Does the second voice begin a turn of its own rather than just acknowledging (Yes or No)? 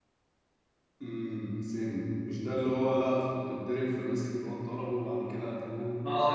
Yes